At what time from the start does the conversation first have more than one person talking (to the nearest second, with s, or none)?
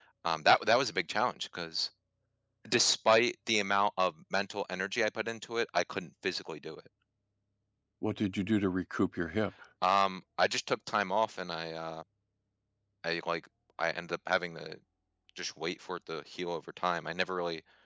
none